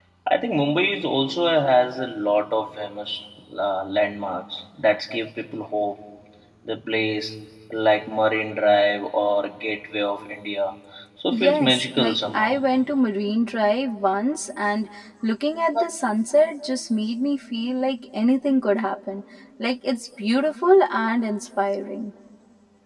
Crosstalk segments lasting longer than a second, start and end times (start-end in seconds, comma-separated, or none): 11.3-12.6